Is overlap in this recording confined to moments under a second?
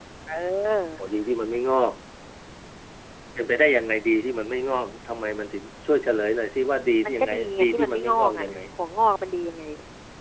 No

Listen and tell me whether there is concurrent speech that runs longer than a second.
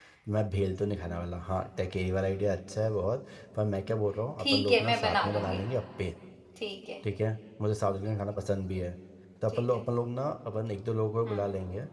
Yes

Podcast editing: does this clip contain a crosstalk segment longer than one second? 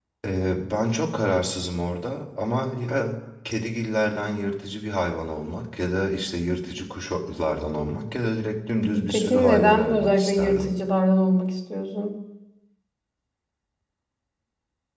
Yes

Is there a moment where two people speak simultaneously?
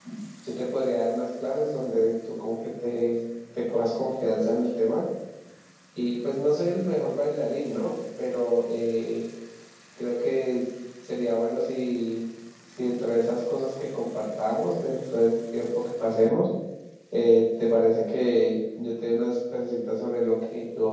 No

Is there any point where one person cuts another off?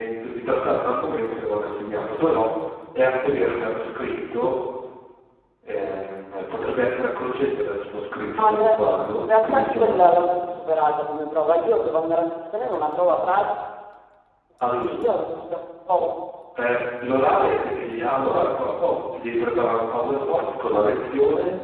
Yes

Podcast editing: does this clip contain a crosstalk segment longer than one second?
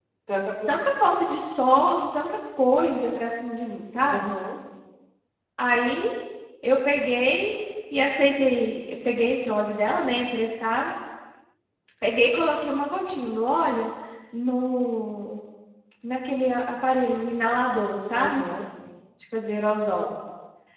No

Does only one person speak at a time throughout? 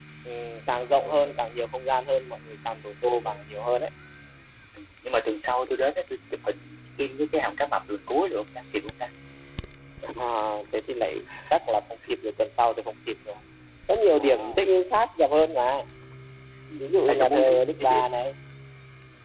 No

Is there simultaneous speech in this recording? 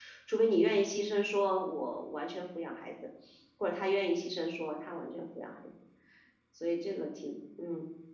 No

